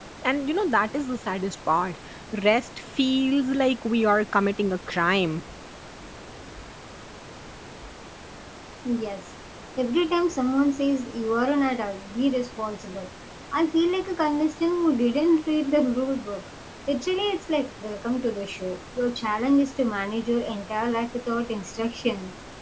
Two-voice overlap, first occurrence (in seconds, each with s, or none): none